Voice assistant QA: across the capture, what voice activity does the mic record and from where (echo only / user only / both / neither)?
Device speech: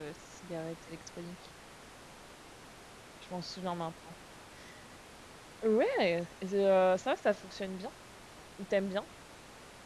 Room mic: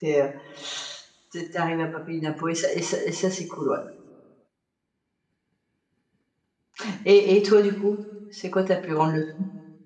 user only